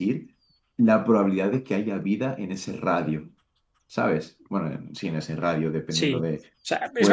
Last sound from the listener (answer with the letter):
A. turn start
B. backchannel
A